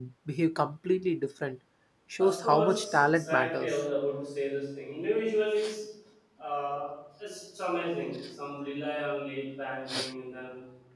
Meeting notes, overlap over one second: present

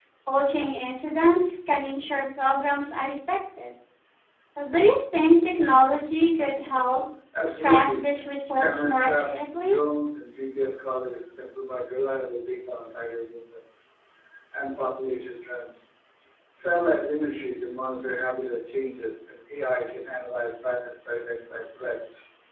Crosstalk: present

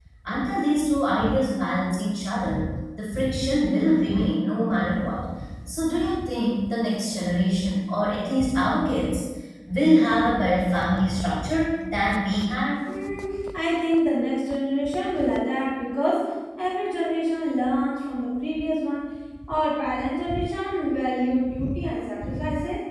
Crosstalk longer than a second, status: none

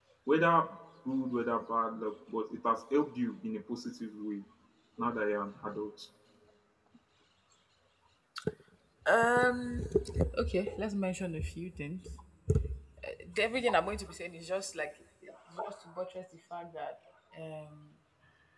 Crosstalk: none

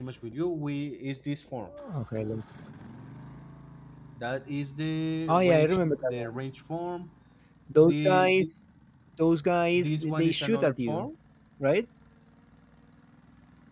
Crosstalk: present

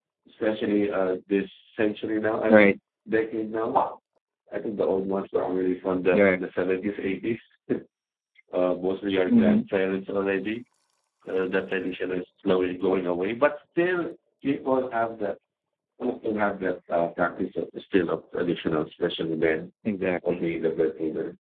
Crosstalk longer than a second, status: none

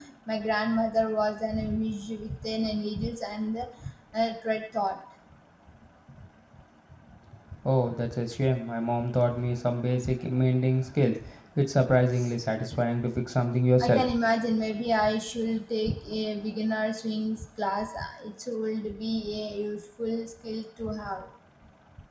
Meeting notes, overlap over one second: none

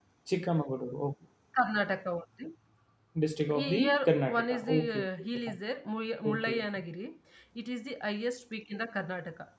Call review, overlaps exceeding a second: present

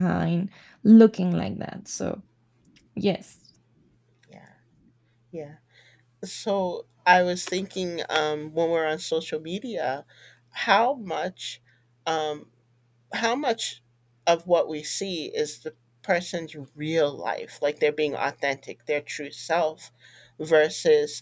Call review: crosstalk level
none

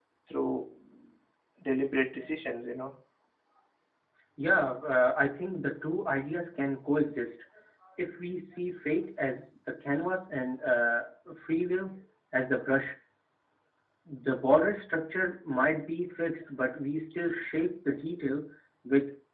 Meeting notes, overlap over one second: none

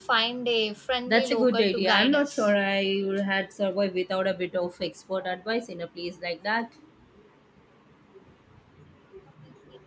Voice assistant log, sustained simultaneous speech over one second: present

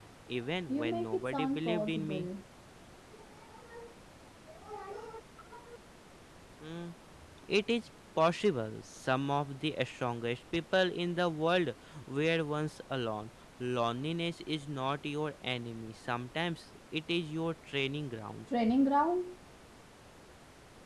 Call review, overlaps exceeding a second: present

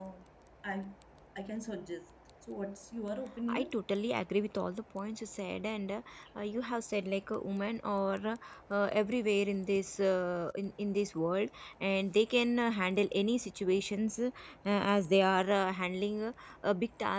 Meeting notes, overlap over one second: none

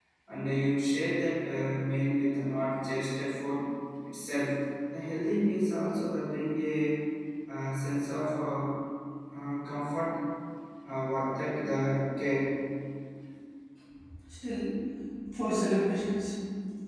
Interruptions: none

